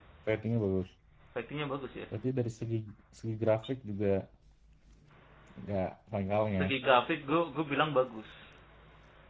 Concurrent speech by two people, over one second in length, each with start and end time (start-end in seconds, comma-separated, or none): none